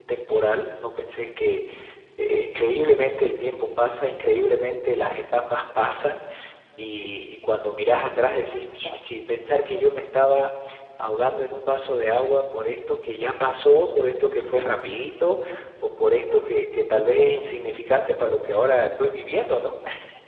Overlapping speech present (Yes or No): No